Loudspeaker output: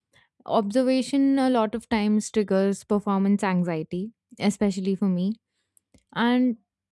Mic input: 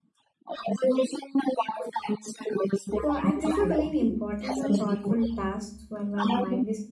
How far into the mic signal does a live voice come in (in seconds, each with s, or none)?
3.0 s